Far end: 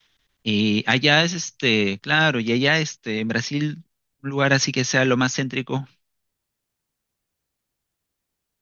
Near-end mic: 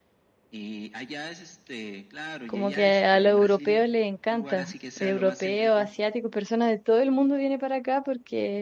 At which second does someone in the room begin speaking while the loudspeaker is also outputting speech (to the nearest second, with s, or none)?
2 s